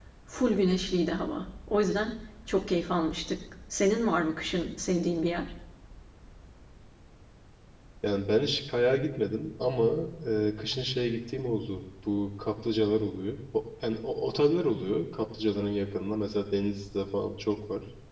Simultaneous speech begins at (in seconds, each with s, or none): none